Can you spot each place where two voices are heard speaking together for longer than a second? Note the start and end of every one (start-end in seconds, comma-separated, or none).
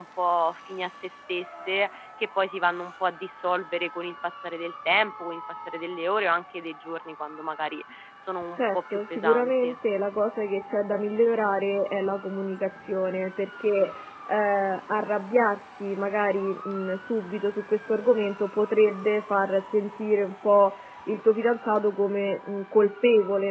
8.6-9.8